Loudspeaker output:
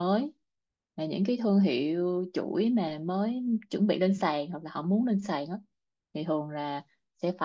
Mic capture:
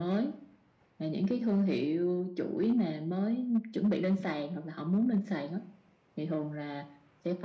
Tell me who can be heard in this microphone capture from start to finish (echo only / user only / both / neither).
echo only